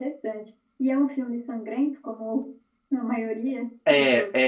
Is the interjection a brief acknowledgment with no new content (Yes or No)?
No